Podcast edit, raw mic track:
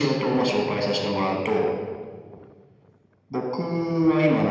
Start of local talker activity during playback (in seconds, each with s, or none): none